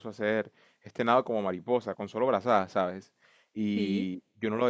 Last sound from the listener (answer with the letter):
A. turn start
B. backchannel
B